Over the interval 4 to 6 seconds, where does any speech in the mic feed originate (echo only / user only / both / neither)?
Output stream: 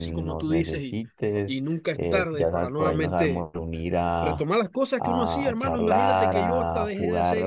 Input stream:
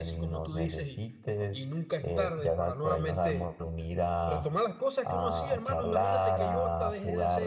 echo only